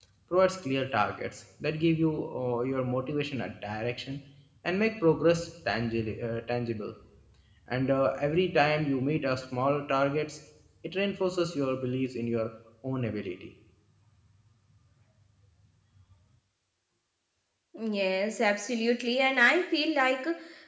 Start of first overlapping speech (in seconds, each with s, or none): none